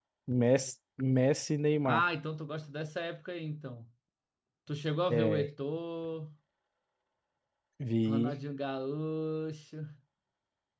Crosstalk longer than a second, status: none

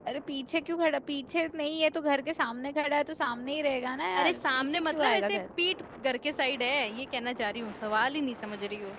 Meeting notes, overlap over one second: present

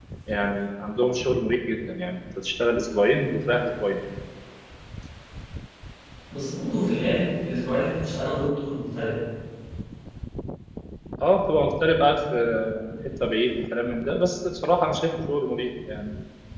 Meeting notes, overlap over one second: none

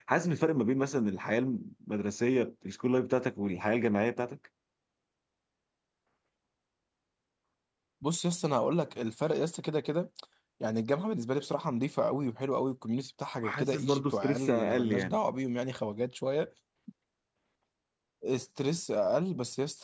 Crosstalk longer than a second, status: present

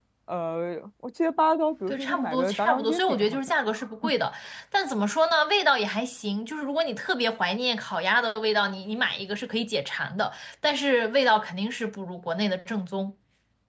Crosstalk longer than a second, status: present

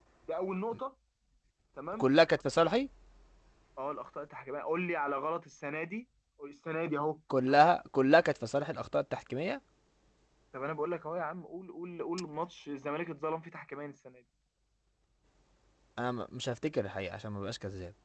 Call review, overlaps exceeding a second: none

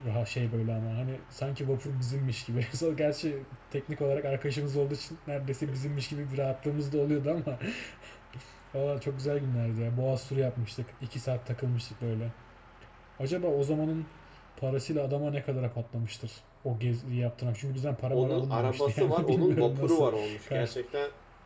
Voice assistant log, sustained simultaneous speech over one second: present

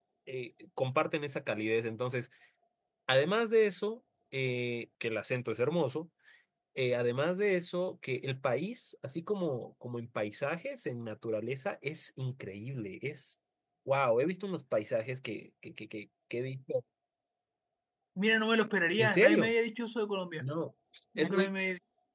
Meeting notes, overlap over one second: none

